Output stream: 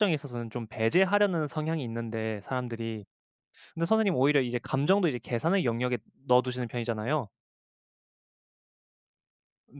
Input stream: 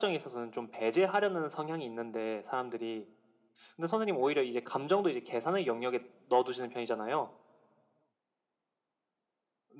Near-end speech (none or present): none